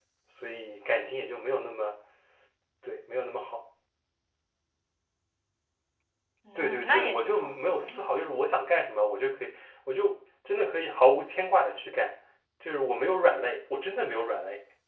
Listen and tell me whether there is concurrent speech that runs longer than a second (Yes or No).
Yes